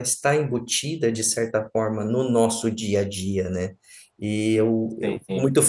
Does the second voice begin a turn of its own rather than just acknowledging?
No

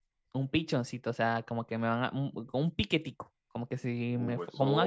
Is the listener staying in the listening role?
No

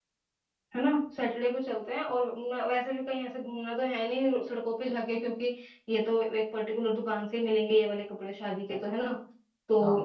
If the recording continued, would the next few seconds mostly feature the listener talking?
No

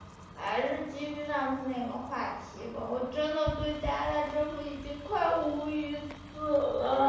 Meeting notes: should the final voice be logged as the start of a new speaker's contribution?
Yes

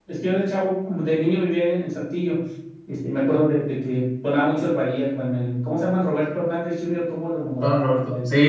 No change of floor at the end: No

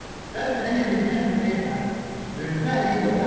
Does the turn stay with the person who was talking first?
Yes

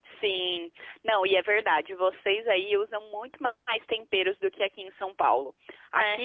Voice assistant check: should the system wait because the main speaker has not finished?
Yes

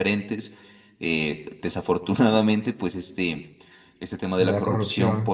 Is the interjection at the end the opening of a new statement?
No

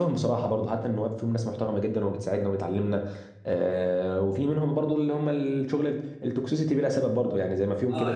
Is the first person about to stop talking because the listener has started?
Yes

